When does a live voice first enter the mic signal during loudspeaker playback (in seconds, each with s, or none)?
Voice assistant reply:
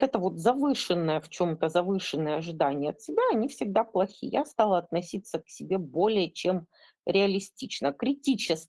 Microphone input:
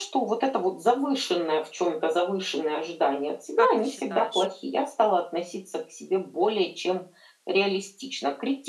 3.5 s